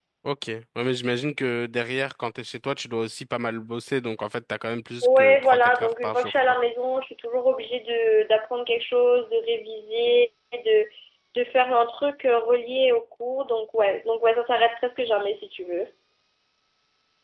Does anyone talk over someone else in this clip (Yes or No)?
Yes